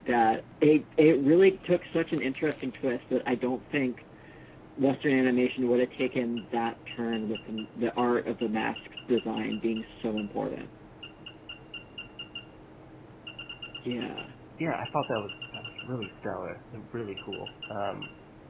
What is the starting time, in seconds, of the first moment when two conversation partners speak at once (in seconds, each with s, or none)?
none